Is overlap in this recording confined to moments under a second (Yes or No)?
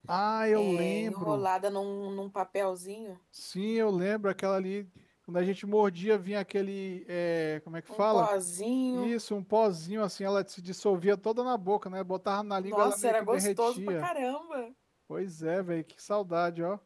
No